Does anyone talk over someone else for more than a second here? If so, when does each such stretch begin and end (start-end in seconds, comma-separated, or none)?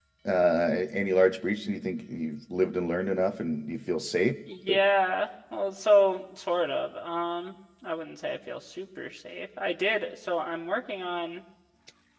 none